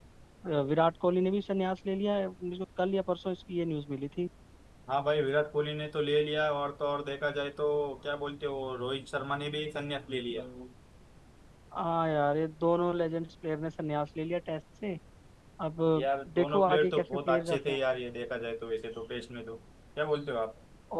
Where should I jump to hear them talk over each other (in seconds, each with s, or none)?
16.4 s